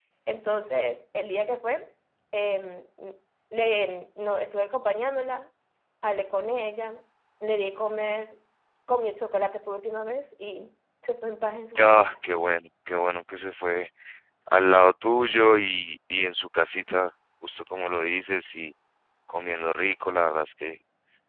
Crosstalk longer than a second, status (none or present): none